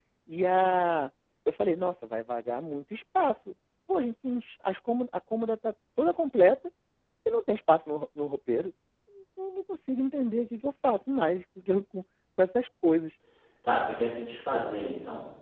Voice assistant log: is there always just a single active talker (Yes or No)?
Yes